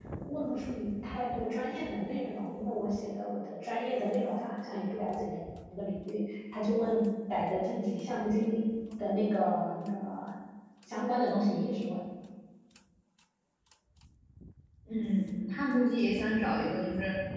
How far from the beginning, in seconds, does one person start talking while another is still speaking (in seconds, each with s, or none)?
none